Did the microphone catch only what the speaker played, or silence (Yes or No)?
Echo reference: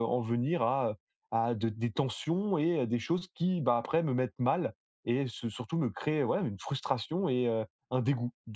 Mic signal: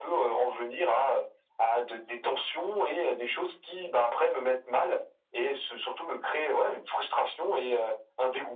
Yes